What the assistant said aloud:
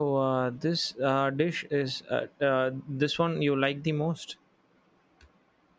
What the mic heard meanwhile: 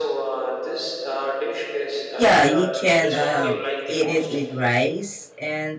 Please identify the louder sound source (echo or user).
user